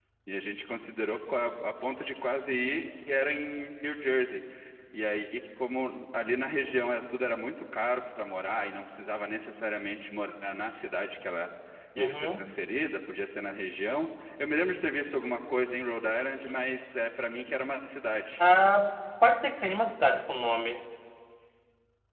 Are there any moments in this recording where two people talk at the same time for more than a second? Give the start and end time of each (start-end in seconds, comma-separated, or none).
none